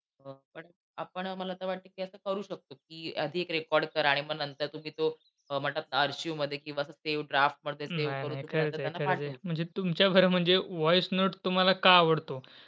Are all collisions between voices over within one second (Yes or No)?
No